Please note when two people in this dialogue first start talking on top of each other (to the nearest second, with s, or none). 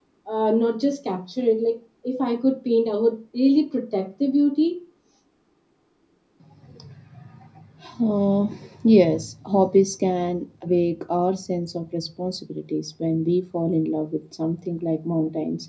none